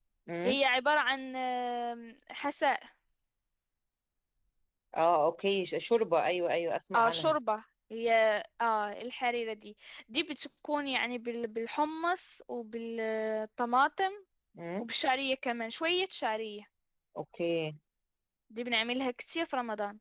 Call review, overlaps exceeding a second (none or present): none